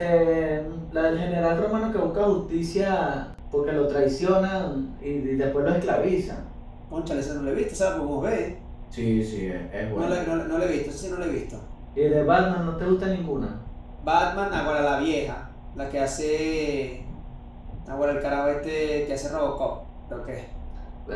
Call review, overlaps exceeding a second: none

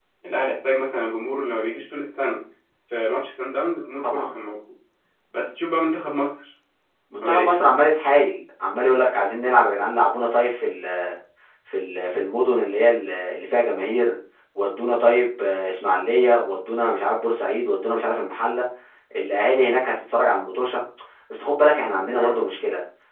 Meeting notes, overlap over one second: none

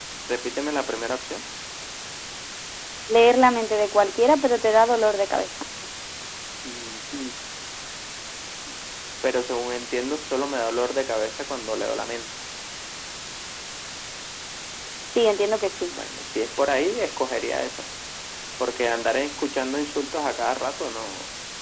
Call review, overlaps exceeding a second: none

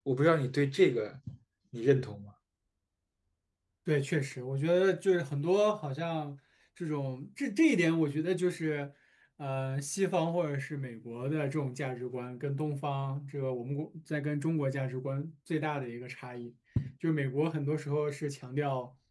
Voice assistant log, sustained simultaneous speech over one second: none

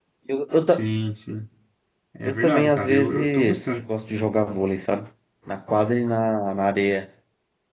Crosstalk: present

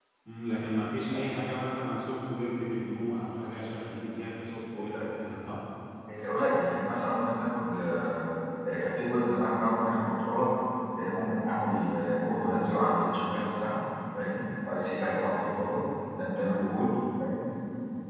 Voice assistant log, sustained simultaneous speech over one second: none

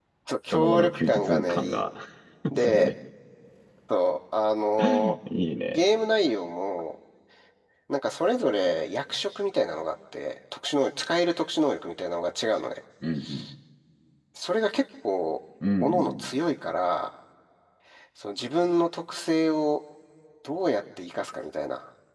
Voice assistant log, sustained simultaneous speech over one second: present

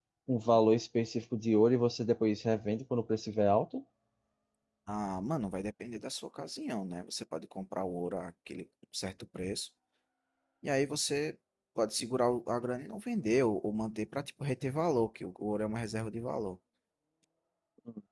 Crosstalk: none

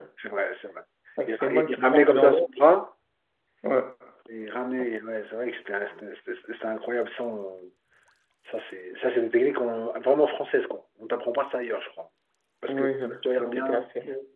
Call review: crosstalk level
present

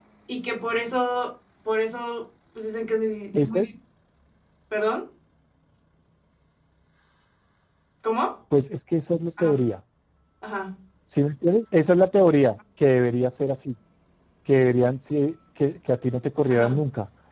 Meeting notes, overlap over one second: none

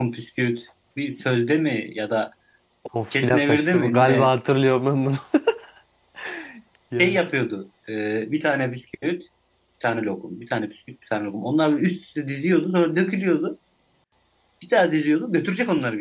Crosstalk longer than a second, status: present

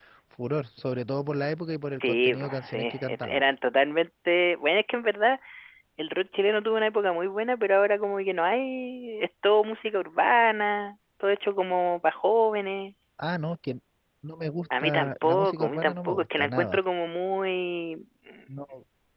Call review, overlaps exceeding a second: present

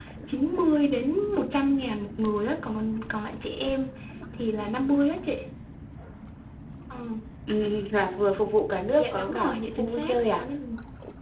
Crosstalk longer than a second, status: present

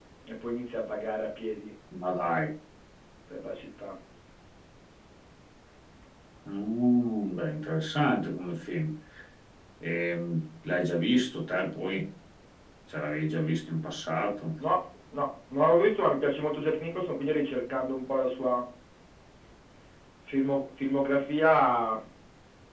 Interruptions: none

